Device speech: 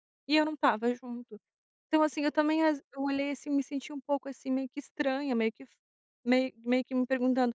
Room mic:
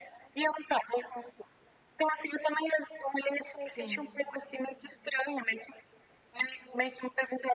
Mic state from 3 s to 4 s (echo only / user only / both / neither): both